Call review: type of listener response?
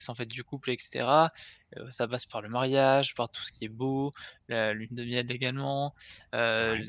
listening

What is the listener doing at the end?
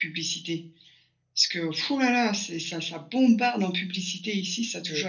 taking over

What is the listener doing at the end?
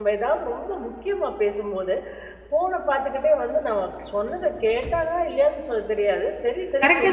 taking over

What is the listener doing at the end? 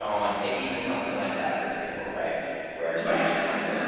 taking over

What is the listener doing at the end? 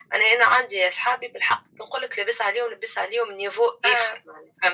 listening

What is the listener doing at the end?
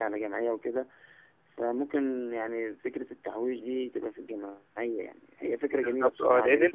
taking over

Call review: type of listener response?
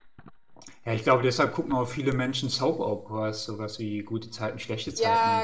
taking over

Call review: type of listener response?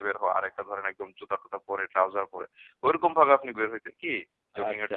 taking over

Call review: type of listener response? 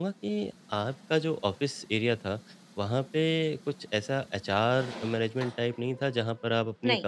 listening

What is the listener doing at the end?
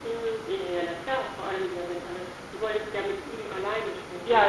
taking over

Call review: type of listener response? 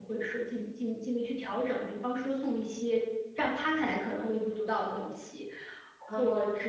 listening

